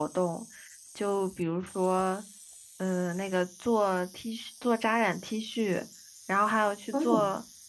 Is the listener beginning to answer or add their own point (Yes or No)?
No